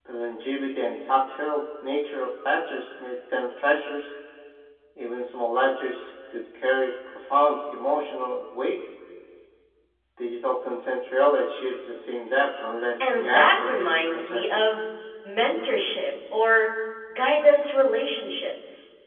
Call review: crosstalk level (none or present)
present